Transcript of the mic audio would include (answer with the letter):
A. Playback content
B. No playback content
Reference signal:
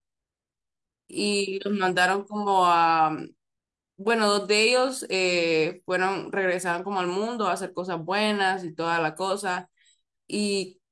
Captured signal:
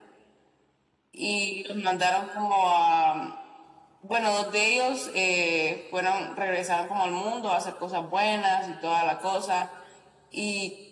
A